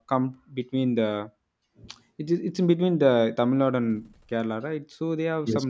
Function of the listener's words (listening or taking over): listening